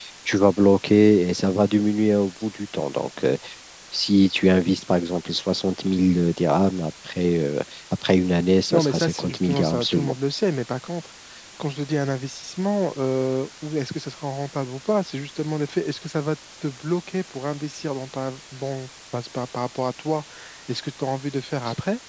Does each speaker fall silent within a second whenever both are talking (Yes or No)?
No